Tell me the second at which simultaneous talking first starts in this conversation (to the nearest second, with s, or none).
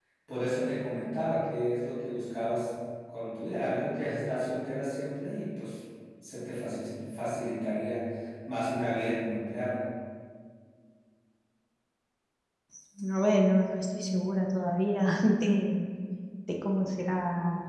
none